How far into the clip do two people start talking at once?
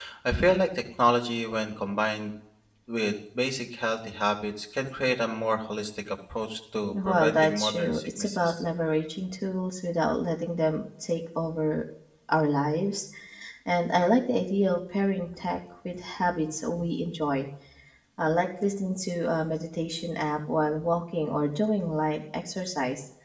7 s

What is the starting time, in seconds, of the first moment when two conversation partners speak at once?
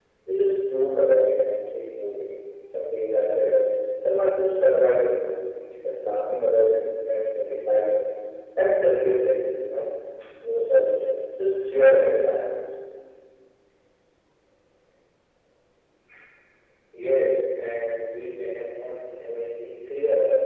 none

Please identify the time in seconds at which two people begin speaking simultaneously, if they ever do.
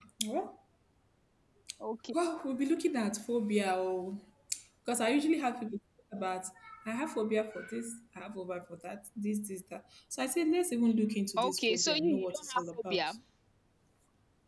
11 s

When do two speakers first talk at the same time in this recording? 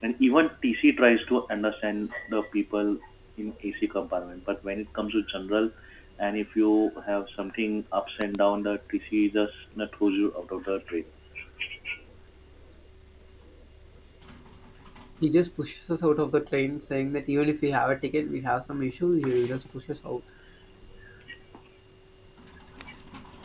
none

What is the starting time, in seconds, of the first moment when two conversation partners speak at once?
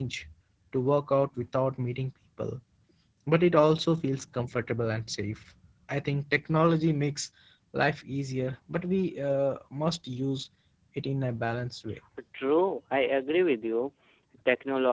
none

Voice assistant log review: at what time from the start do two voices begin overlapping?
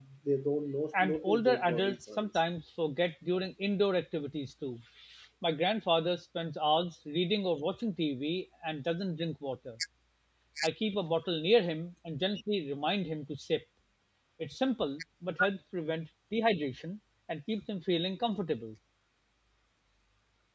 1 s

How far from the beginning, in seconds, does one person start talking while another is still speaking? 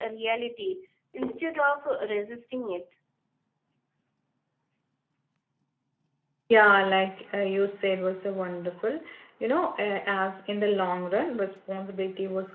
none

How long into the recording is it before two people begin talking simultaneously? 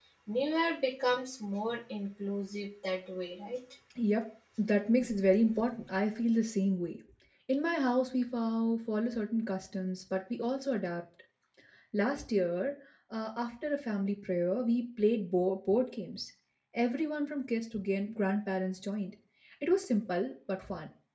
none

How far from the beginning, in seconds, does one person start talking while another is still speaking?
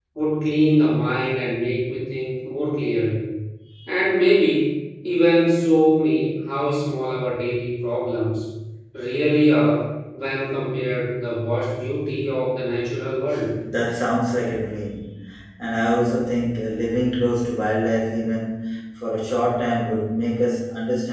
none

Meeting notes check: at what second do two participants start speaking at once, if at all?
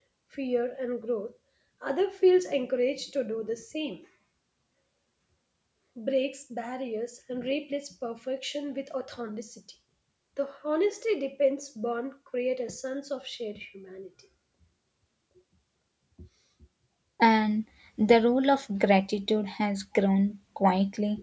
none

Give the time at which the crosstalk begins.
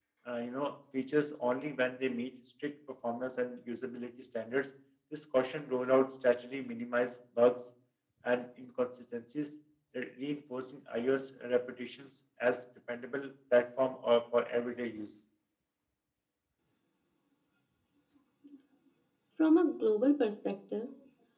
none

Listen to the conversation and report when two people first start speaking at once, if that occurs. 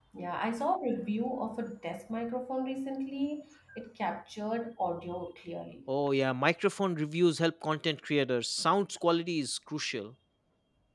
none

